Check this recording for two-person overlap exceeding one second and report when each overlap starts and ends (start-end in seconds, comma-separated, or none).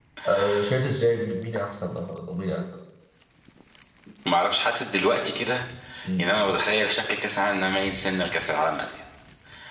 none